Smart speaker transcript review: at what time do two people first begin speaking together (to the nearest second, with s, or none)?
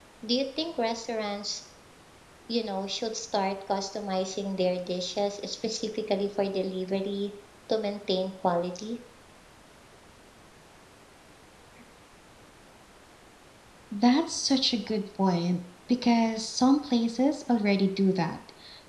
none